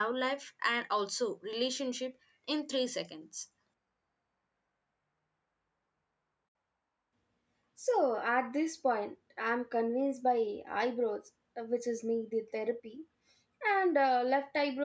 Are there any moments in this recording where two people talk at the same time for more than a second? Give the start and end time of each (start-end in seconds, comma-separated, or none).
none